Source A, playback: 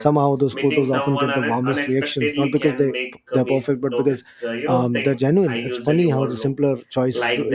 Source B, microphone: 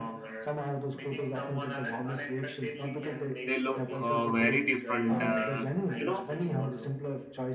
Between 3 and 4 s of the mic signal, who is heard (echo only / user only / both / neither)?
both